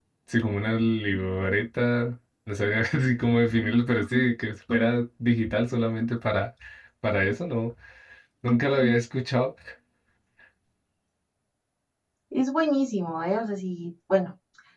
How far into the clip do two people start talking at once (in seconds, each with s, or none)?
none